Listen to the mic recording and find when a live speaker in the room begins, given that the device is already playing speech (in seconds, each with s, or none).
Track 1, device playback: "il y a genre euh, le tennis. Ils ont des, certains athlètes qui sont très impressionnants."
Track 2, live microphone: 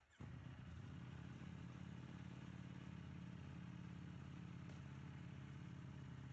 none